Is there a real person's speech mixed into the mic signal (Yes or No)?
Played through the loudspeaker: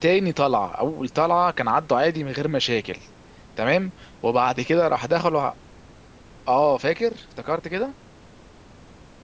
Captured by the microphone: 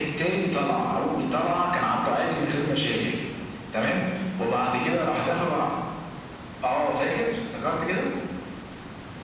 No